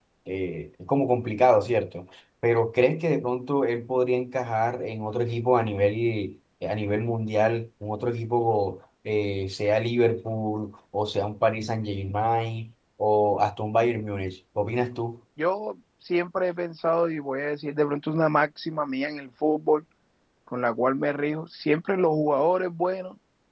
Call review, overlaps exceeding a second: none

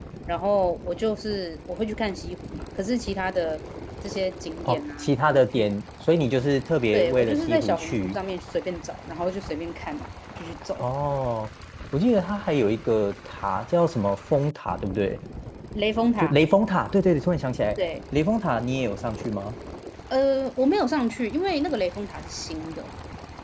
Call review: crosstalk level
present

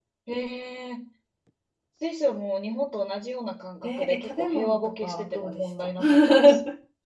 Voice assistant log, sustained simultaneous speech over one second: present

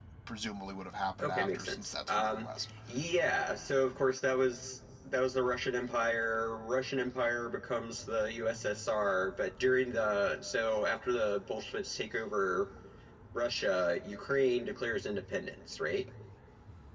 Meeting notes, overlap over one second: present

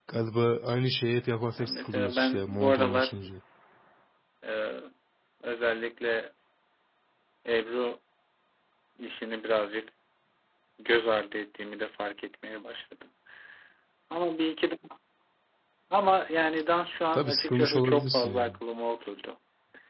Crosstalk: present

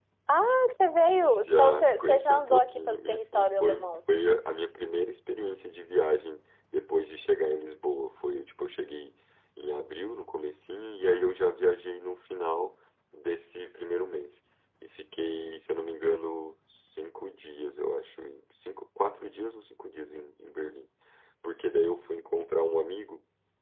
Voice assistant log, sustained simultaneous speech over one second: present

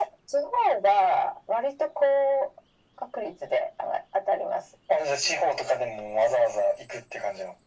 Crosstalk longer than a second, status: none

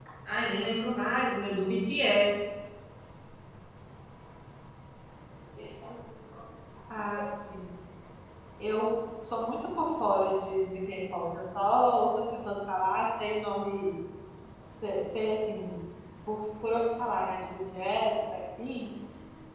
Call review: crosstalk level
none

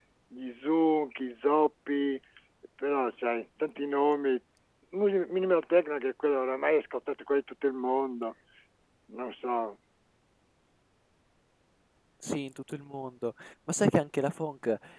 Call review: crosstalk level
none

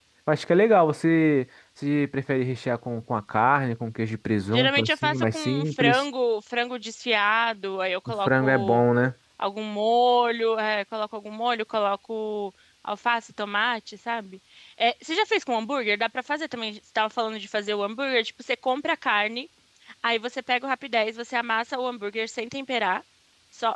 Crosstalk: present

